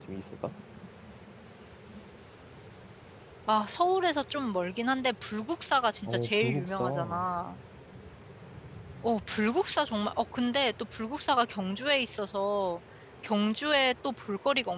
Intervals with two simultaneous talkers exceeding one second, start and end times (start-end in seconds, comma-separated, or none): 6.1-7.3